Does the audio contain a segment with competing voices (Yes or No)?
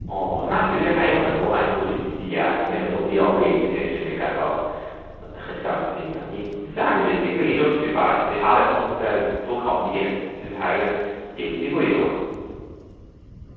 No